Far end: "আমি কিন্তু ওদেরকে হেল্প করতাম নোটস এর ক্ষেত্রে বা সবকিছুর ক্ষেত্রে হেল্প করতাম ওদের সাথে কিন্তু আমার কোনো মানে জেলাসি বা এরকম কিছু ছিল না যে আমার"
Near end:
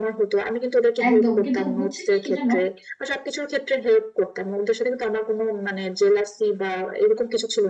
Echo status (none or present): present